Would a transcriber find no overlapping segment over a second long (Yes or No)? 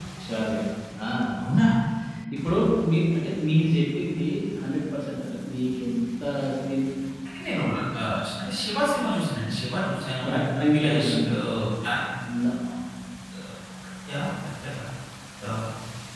Yes